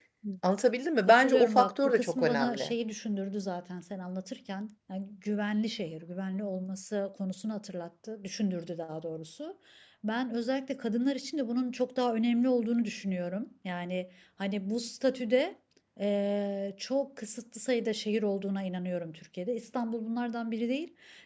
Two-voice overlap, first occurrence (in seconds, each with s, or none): 1.1 s